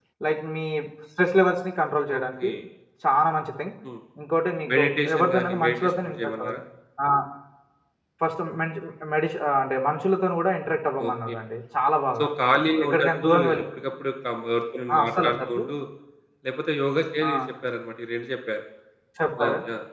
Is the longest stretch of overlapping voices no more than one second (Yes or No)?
No